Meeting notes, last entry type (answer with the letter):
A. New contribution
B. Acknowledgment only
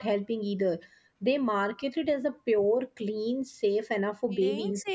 A